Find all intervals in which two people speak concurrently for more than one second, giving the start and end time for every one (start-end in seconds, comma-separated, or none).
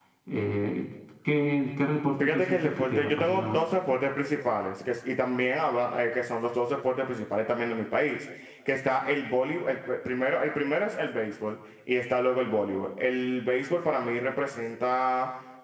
2.2-3.6